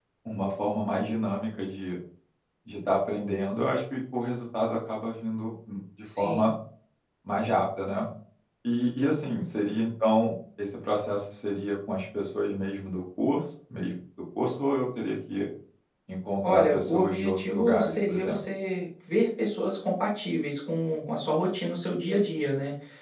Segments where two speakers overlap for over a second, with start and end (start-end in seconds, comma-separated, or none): 16.4-18.4